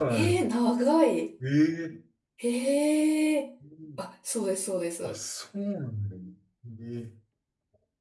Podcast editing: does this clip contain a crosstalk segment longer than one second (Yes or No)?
No